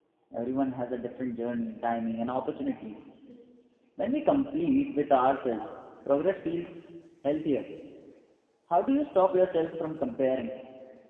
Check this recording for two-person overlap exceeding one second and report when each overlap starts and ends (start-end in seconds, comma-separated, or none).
none